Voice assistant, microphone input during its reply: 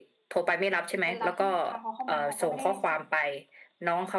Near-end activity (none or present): present